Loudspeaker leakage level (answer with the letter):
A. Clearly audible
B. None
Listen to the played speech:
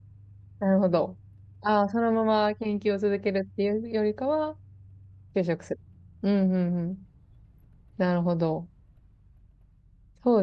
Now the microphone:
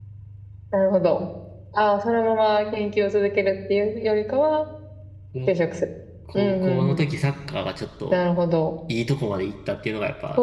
A